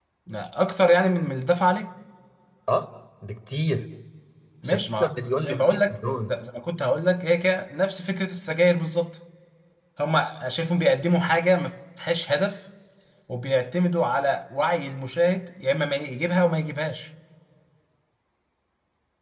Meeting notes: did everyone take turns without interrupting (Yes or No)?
No